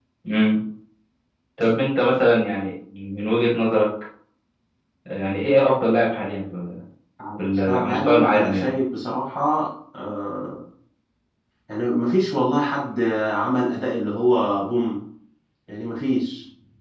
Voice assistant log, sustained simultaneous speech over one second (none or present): present